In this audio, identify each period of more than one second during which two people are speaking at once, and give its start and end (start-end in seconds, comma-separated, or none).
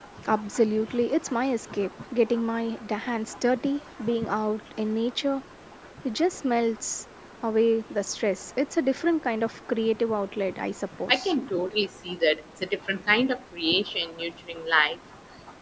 none